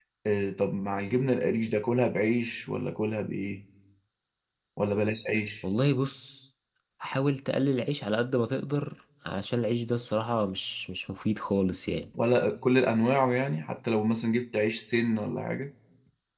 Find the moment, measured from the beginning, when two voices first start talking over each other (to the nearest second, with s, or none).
none